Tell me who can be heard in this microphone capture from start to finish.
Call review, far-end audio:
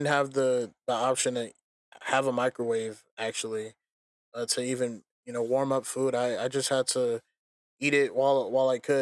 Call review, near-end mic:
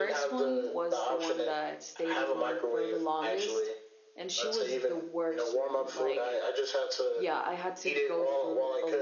both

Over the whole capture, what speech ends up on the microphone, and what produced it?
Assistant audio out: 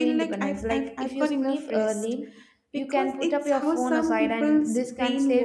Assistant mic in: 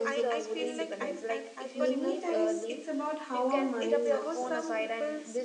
both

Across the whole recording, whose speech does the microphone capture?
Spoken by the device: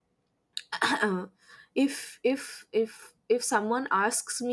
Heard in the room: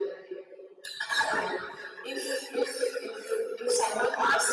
echo only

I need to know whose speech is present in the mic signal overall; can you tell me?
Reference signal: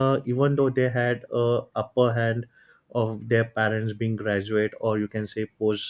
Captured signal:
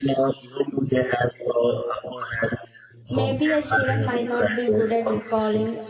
both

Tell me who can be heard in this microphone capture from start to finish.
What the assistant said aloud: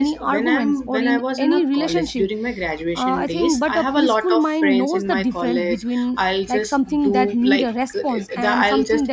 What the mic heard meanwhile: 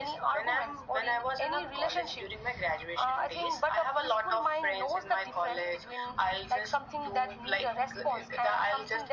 echo only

